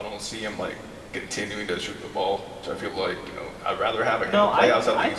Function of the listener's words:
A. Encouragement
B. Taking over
B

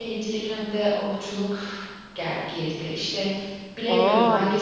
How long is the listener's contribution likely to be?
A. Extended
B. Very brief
B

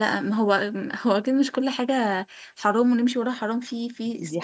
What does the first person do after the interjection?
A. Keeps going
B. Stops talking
B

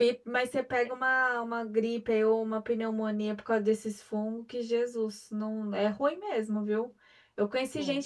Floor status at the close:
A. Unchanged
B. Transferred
A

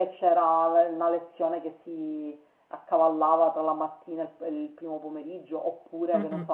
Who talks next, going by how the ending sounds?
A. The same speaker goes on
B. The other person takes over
A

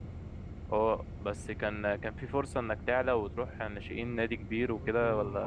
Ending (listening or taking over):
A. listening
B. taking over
B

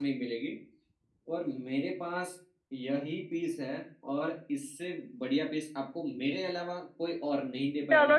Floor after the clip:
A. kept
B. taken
B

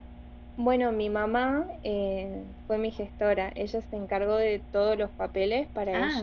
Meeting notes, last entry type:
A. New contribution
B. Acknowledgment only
B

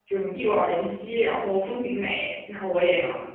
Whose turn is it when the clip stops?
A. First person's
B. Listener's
A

